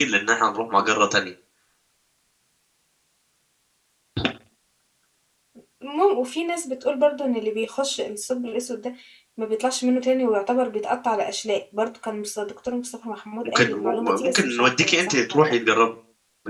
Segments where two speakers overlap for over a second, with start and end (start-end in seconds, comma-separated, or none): 13.4-15.5